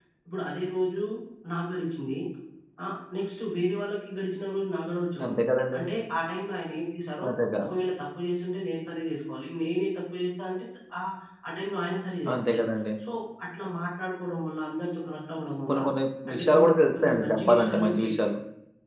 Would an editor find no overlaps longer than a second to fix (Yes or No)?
No